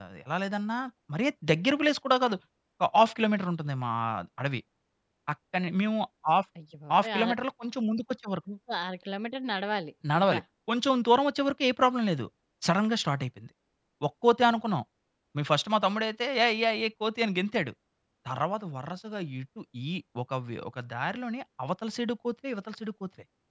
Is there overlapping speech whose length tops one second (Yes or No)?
No